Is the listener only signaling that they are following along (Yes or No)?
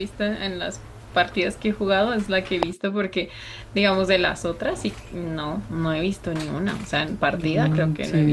No